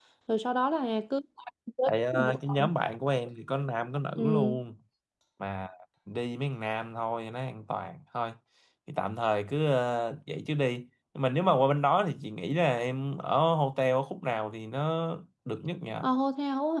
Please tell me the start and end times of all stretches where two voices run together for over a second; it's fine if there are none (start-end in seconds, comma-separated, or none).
none